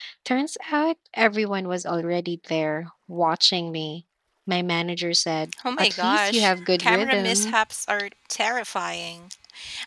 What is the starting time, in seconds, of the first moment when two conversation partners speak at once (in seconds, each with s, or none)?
5.5 s